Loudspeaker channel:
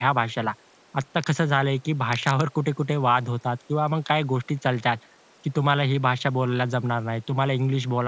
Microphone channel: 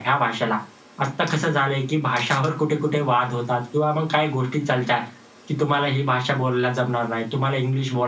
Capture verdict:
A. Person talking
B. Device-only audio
B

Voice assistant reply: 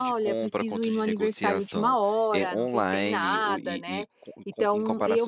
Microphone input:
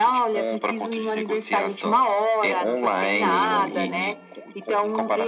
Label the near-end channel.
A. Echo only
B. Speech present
B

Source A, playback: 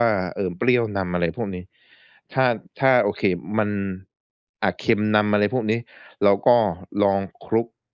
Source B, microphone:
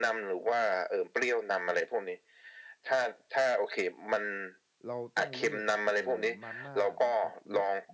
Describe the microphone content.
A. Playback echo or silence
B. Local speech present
B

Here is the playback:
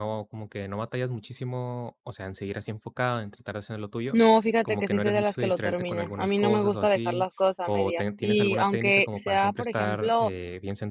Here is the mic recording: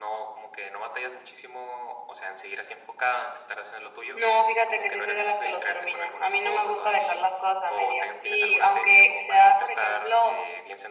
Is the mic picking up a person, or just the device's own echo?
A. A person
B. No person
B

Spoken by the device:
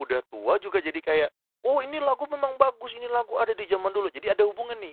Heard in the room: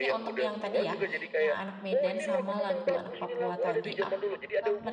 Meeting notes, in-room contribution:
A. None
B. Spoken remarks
B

